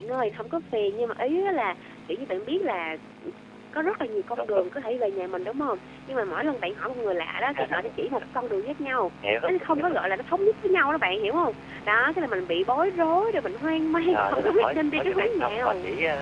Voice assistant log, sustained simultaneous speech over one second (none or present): present